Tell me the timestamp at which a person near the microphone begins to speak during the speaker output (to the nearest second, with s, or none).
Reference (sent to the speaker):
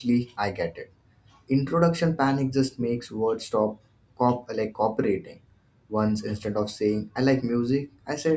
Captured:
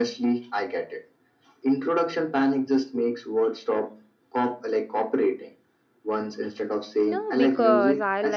7 s